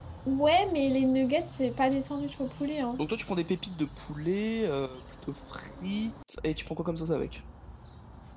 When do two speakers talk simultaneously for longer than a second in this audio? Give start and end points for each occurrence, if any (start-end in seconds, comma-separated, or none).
none